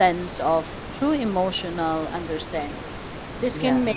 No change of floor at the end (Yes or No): Yes